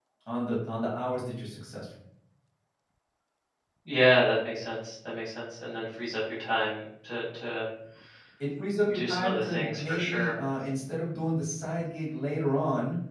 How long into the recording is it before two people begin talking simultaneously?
8.9 s

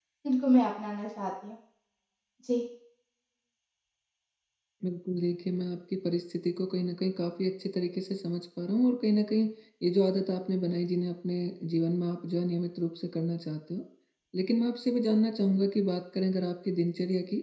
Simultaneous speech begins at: none

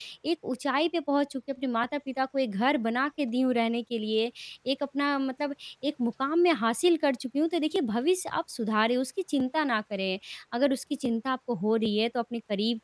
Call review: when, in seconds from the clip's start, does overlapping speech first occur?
none

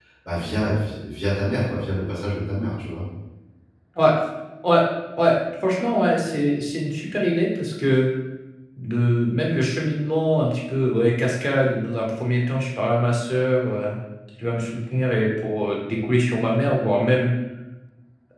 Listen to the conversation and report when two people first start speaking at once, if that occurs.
none

